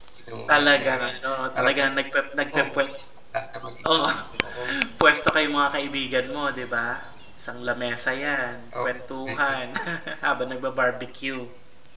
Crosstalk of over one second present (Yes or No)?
Yes